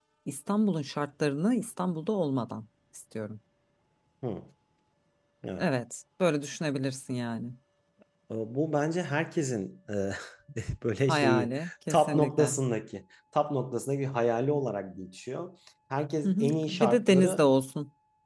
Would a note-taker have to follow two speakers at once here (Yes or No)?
Yes